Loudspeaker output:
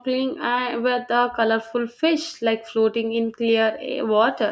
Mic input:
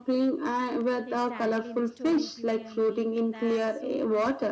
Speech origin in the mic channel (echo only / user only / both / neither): both